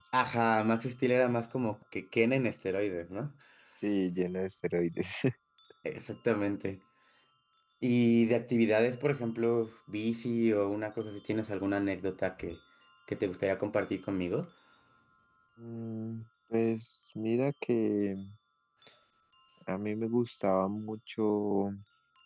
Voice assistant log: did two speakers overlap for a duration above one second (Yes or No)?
No